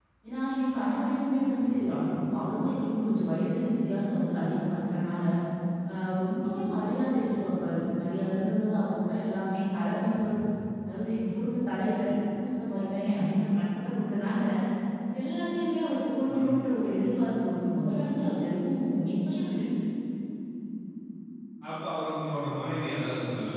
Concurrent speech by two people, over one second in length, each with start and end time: none

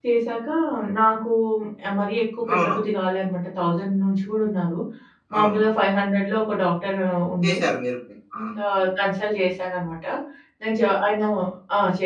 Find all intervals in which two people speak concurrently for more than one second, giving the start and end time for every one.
none

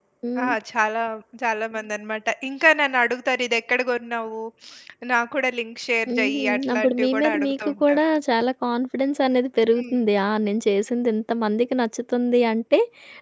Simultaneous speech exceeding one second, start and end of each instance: 6.1-8.1

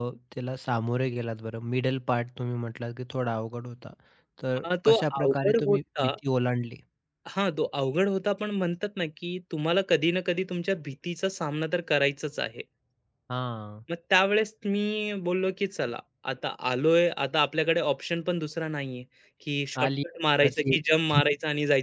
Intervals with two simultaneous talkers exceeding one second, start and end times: 4.8-6.1

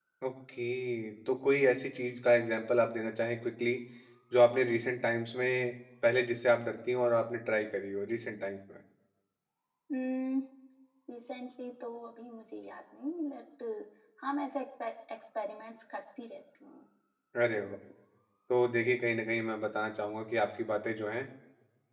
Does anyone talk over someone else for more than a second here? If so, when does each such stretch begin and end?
none

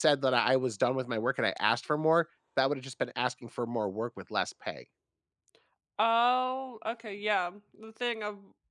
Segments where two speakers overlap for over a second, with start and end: none

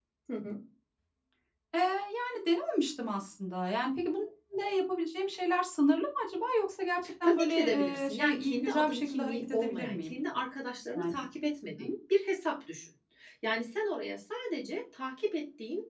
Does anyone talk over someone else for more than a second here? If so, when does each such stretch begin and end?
7.2-10.1

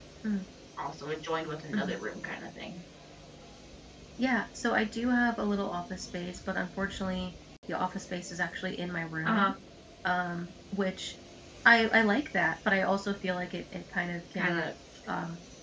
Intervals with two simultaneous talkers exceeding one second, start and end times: none

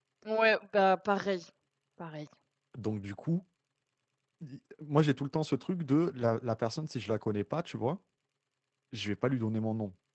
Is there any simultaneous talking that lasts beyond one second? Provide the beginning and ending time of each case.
none

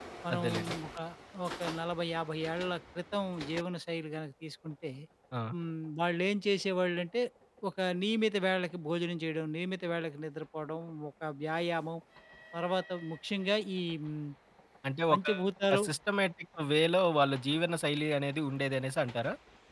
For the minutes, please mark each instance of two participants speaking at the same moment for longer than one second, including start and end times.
none

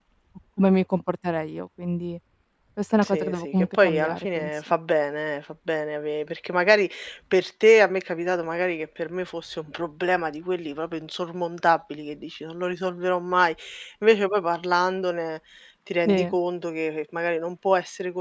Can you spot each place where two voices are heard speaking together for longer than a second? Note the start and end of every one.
3.0-4.5

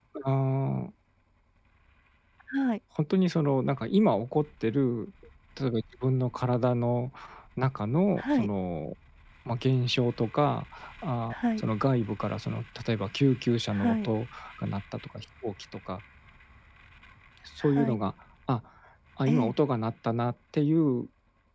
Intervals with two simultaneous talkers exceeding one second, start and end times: none

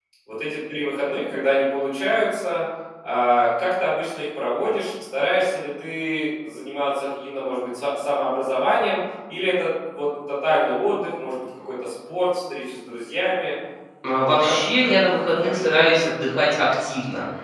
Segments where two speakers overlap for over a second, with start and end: 14.2-16.0

